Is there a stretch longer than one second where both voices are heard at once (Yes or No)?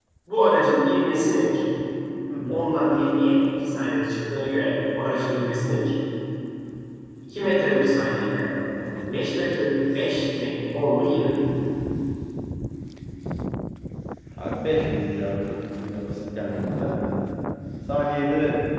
No